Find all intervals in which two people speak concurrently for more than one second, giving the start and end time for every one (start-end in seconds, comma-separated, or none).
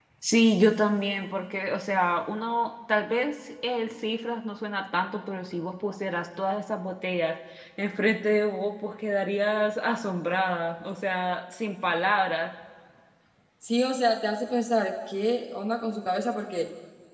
none